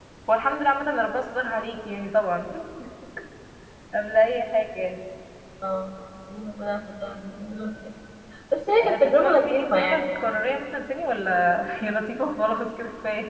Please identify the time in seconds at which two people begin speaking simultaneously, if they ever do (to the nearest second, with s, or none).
9 s